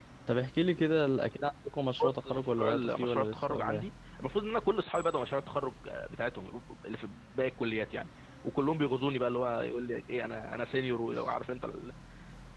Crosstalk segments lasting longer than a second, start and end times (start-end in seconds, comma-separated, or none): 2.0-3.9